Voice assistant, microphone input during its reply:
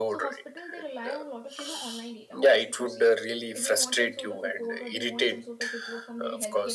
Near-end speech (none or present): present